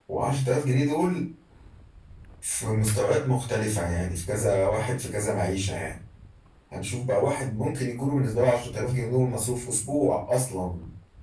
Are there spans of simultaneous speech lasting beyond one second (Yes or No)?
No